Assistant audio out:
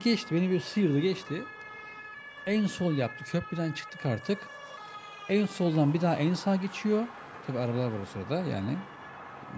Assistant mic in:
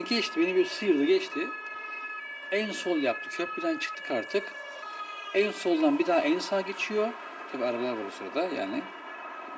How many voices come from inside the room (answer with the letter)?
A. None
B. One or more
A